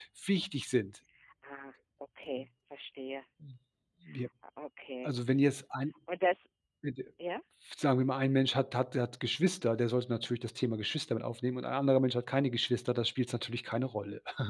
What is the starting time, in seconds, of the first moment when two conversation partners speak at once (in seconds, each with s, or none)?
none